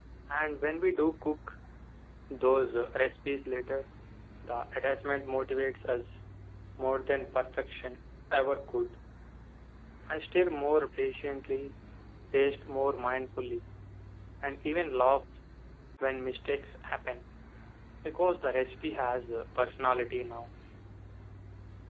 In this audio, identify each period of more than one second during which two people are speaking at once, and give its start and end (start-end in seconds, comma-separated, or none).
none